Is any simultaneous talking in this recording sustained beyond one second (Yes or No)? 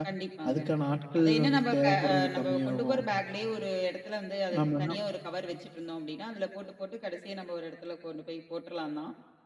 Yes